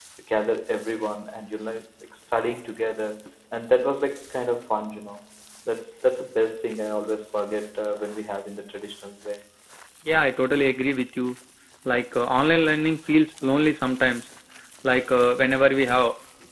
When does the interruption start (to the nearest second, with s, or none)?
none